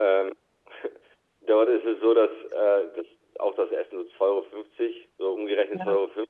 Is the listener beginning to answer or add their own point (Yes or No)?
No